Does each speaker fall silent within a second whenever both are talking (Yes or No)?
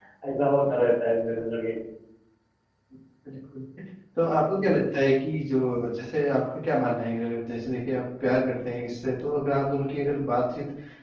Yes